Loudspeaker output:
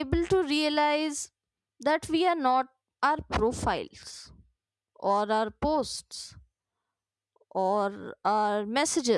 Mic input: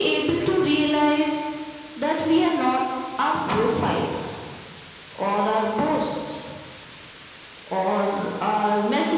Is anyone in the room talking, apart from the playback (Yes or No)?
No